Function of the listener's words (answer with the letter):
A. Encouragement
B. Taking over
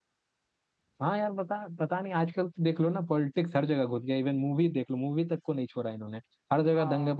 A